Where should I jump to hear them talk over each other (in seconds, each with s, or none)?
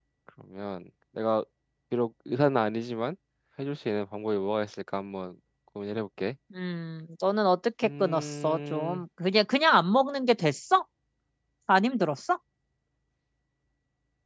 7.8 s